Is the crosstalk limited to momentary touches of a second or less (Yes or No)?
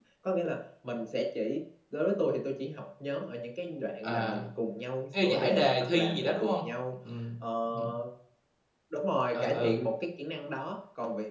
No